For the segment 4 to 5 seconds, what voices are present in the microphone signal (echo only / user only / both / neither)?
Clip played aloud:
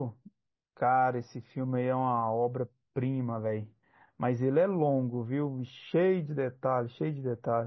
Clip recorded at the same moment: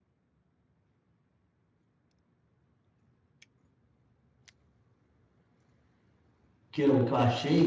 neither